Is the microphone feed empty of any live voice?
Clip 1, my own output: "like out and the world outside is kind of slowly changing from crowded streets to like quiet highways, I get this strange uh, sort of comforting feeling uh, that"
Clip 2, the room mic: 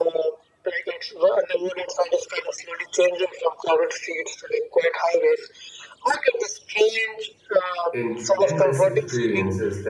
No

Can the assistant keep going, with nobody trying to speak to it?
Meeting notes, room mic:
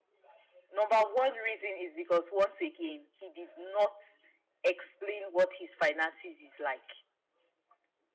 Yes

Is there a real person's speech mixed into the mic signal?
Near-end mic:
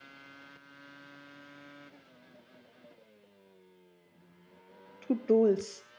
Yes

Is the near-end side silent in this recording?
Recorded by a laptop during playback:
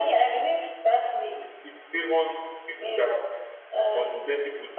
Yes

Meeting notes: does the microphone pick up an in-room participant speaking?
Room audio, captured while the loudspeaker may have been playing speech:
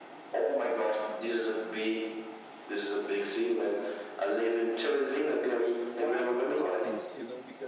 Yes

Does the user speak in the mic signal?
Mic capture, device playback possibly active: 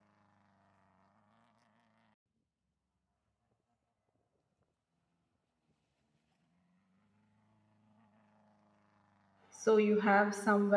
Yes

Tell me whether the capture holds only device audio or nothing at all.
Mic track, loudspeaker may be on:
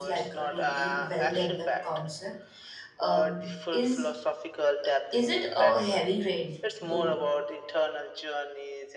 No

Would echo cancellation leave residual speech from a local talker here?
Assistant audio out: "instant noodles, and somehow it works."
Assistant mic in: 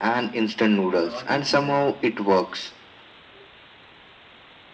Yes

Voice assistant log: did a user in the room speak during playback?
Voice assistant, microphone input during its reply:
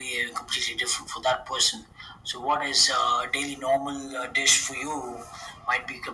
No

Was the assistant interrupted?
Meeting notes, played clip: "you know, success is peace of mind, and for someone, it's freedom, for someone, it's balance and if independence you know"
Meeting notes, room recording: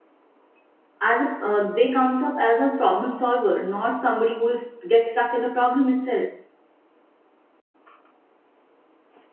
Yes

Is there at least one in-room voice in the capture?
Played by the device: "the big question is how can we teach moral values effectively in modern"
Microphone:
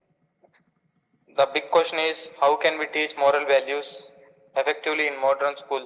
No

